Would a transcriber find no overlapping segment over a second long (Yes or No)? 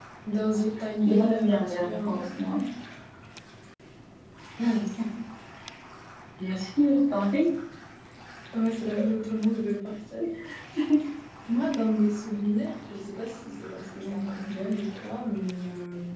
No